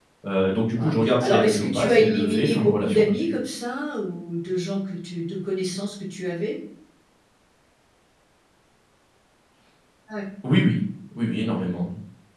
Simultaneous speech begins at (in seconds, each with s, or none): 0.8 s